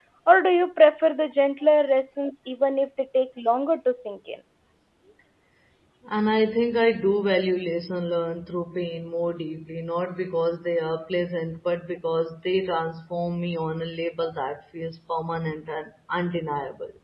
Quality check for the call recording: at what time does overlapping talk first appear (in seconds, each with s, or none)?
none